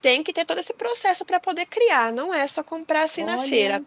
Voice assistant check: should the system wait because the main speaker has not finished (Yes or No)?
Yes